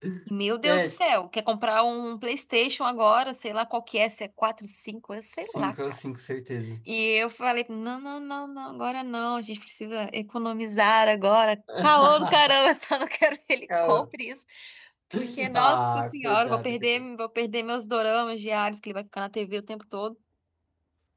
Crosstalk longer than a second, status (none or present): present